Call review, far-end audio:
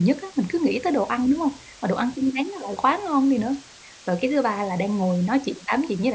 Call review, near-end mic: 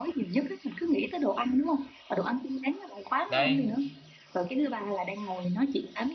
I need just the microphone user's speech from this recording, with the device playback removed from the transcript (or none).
đấy.